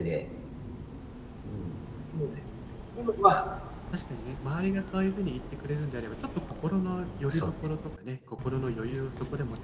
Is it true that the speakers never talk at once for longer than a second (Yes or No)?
Yes